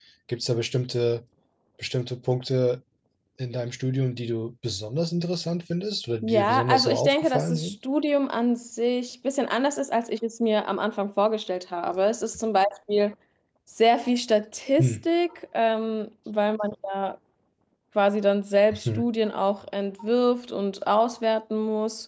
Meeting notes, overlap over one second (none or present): present